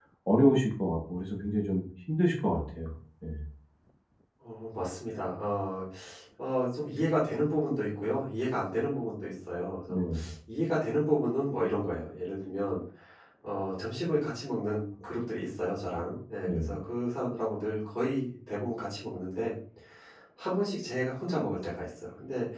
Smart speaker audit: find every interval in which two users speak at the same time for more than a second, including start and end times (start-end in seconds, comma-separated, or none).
none